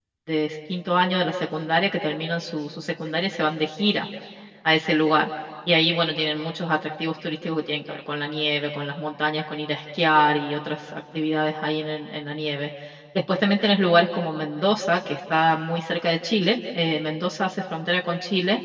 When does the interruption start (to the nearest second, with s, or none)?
none